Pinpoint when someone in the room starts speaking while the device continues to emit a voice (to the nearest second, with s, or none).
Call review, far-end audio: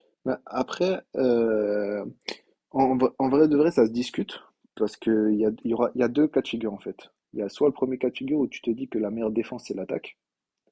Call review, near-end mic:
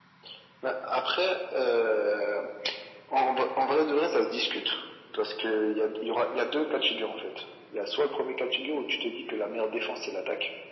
none